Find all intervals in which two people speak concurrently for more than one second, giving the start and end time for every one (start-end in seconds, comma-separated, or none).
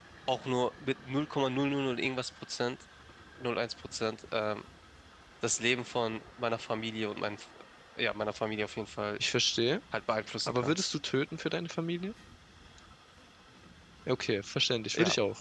none